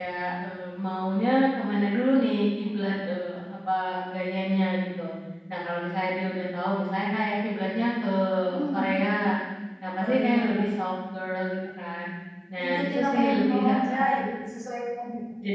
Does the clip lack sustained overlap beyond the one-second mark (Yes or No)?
No